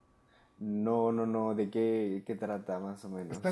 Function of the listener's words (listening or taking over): taking over